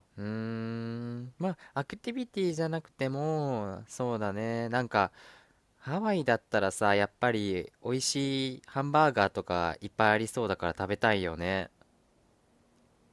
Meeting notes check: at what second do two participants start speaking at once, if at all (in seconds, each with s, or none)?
none